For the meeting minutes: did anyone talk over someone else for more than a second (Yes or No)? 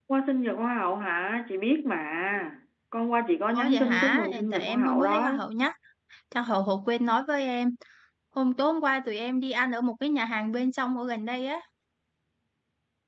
Yes